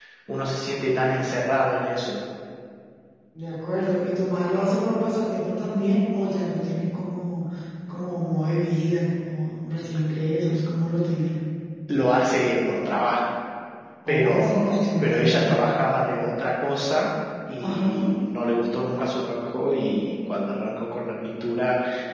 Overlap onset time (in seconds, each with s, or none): 14.1 s